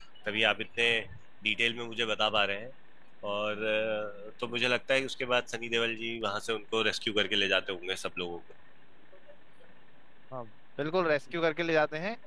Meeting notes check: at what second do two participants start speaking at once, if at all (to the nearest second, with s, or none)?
none